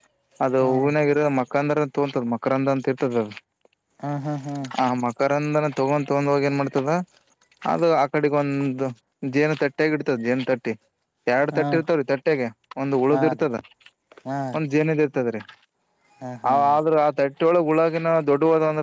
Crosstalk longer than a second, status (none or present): none